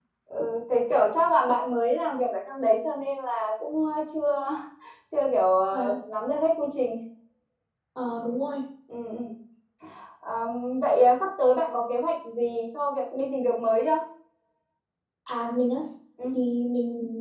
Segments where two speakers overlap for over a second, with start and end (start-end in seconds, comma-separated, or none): none